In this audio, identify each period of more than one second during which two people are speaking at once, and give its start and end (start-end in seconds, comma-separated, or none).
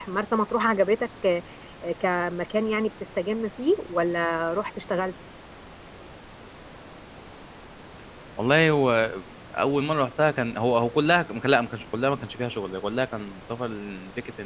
none